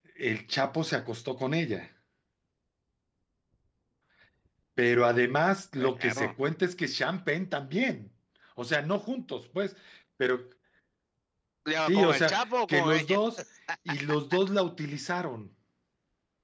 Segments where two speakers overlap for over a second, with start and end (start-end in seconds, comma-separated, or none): 11.8-13.2